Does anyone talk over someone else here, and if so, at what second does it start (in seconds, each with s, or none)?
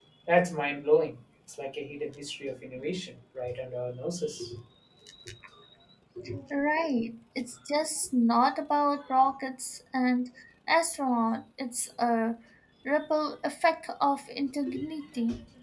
none